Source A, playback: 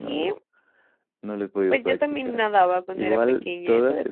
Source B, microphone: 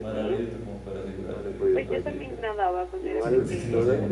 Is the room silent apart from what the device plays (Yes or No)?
No